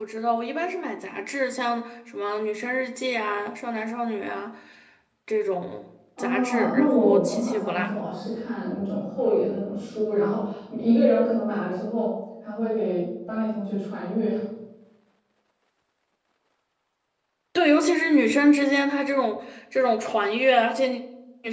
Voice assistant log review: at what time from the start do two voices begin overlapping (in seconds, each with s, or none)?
6.2 s